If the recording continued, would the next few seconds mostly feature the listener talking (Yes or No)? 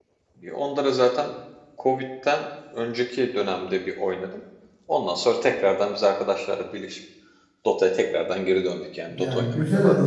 Yes